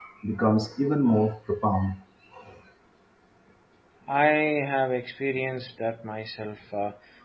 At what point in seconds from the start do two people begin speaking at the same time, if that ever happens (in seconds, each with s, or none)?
none